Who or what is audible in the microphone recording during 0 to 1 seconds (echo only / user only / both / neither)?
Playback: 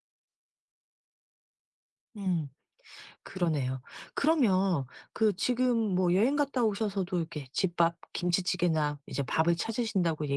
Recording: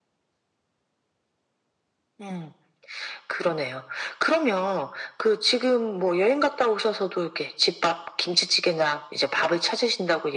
neither